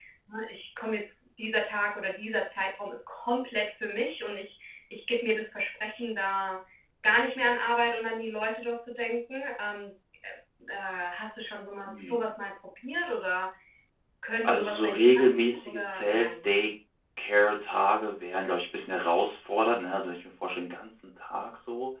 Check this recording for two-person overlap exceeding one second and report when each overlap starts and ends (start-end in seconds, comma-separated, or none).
14.4-16.6